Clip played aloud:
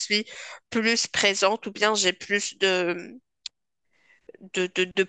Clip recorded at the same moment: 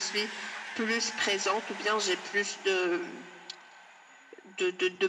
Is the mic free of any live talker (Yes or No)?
Yes